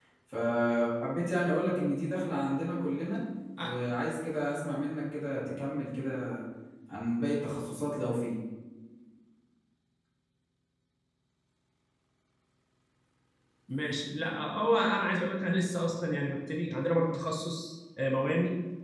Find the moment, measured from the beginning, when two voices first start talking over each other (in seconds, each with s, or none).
none